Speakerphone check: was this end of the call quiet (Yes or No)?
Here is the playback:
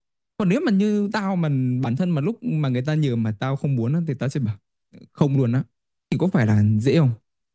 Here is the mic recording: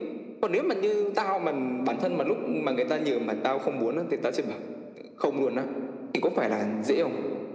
Yes